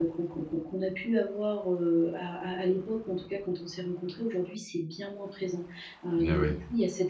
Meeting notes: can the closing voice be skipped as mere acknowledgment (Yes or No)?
Yes